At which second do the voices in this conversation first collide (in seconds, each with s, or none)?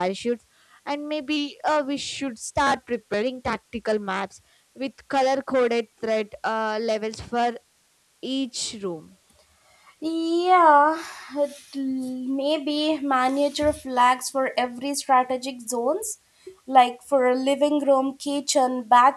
none